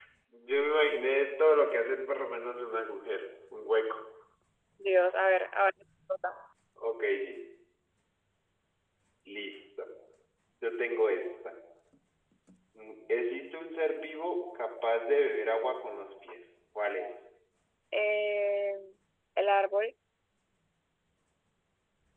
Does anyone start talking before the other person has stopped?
No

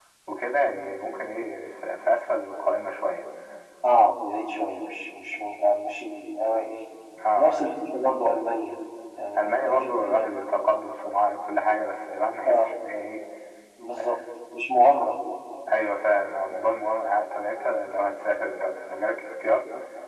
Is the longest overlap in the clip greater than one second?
No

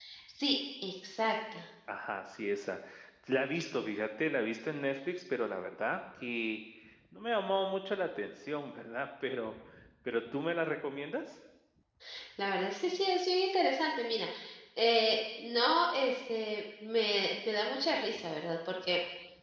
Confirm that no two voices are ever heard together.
Yes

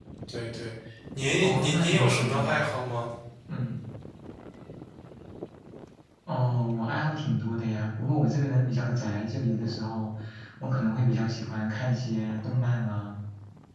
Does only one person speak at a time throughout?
No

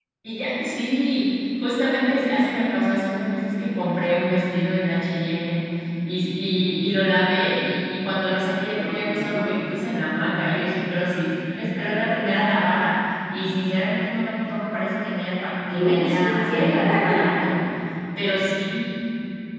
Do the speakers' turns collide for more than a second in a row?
Yes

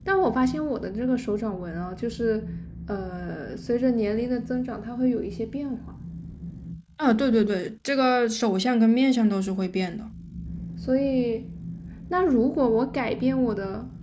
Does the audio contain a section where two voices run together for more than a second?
No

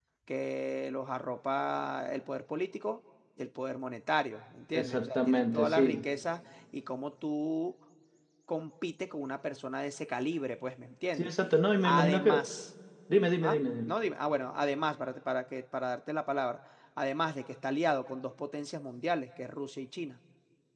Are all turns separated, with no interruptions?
No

